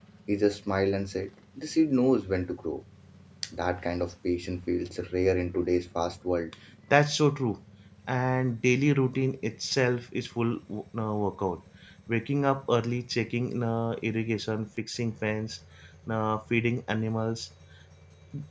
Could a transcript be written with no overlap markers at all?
Yes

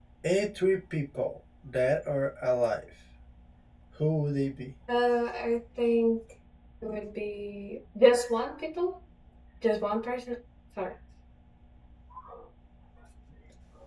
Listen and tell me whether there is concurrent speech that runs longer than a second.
No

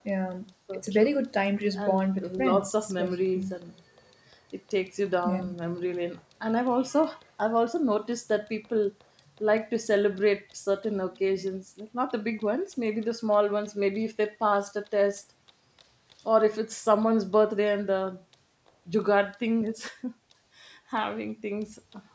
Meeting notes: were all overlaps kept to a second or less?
No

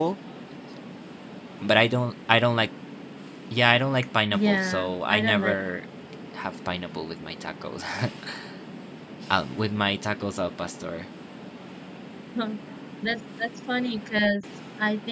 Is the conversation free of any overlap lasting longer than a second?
No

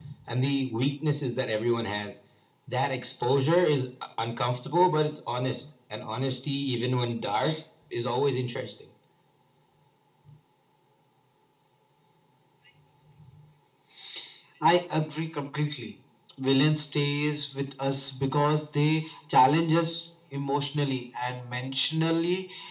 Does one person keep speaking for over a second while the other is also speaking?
No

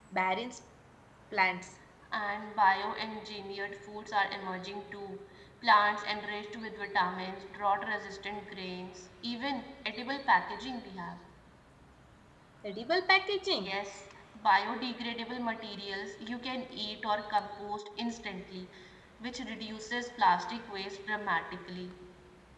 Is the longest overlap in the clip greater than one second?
No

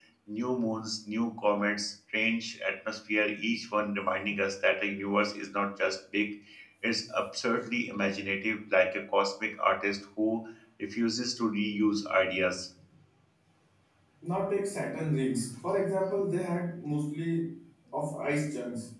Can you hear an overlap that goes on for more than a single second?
No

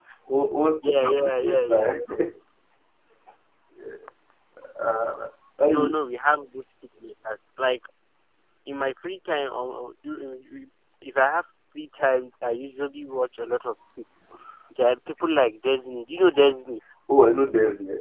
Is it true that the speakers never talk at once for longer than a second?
No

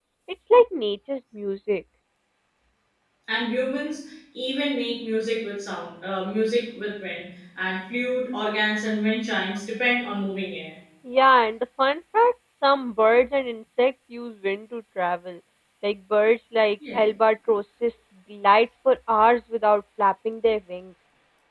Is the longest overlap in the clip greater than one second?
No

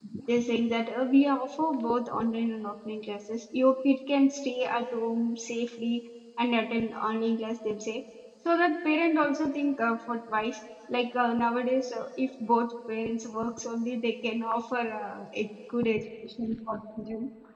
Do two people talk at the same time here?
No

